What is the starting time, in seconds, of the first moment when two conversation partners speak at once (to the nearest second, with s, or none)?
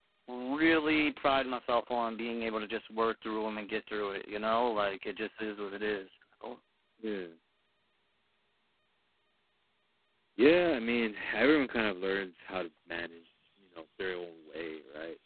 none